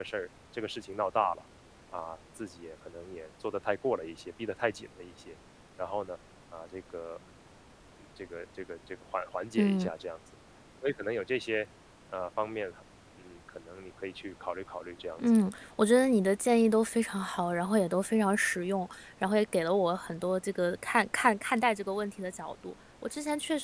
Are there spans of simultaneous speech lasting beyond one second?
No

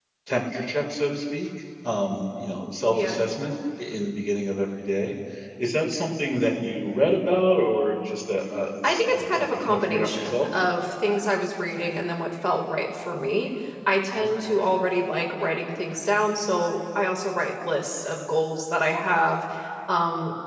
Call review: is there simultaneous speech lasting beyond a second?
Yes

